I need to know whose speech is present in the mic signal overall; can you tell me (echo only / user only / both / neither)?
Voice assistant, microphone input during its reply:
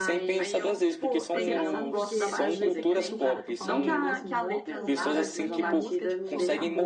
both